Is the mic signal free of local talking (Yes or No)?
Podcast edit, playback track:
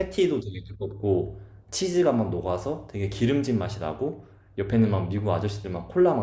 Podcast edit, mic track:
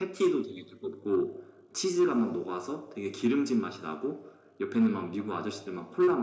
Yes